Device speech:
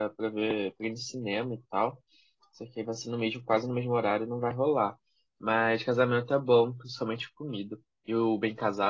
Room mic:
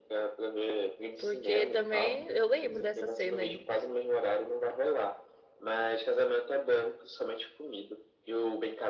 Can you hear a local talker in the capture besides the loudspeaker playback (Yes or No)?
Yes